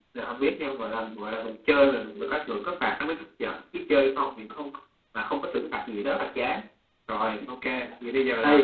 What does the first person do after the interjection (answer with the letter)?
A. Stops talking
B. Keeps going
A